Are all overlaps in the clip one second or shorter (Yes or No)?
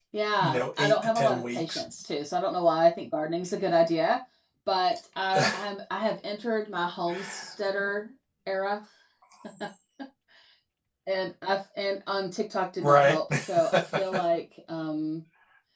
No